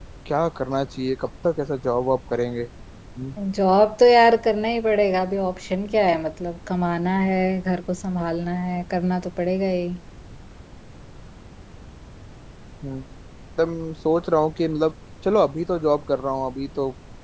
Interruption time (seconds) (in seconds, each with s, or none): none